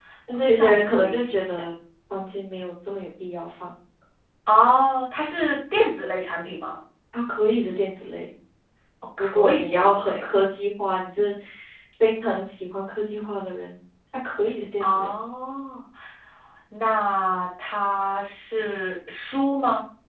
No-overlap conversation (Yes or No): No